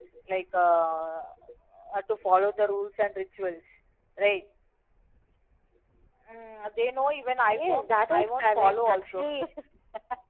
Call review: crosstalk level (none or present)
present